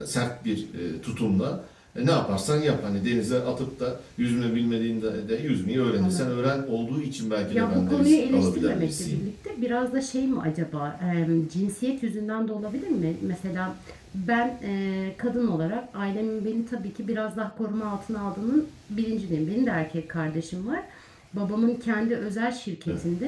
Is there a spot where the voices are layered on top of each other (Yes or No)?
Yes